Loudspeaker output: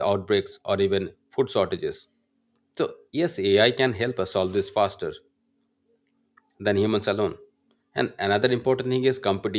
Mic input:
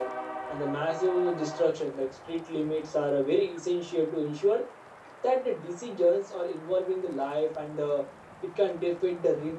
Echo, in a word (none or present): none